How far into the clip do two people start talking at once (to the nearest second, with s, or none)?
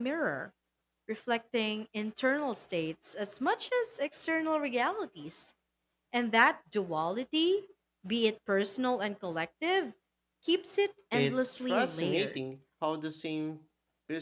11 s